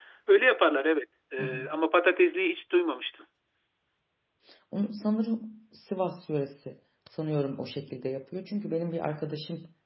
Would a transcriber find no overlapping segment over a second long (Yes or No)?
Yes